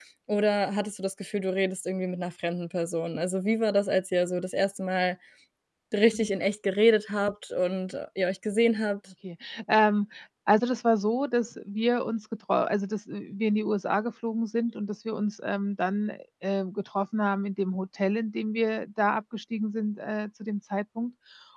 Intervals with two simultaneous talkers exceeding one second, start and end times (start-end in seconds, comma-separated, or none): none